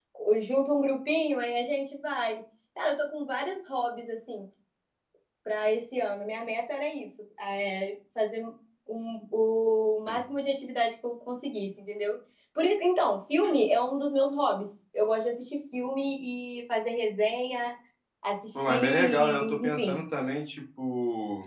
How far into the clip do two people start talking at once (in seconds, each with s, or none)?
18.7 s